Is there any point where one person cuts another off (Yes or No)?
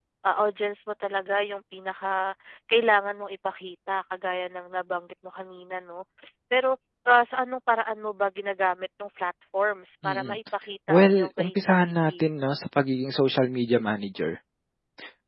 Yes